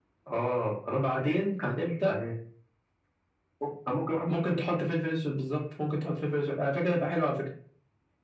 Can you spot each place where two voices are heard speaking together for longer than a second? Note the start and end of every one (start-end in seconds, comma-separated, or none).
0.9-2.2